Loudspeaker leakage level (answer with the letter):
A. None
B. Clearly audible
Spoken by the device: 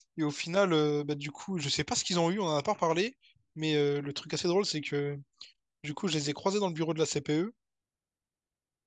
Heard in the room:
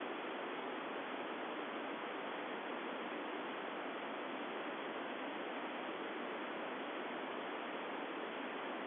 A